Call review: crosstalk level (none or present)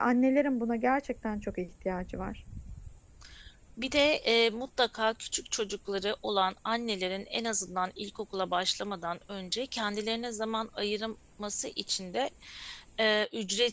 none